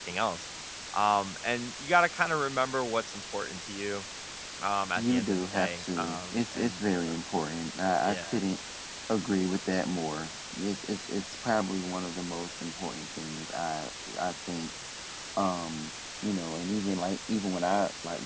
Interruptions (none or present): present